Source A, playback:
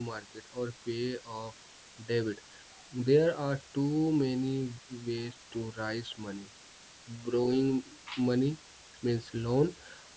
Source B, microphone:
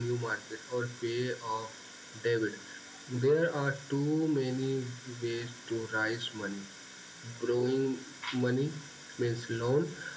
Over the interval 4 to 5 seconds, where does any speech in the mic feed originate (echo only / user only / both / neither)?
echo only